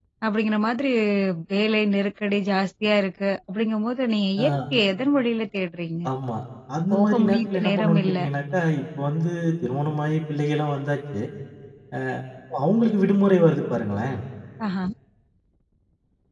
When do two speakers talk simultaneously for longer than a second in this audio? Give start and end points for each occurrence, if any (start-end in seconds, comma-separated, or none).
6.9-8.2